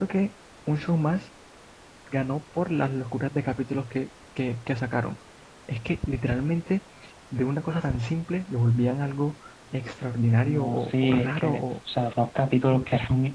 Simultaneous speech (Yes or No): Yes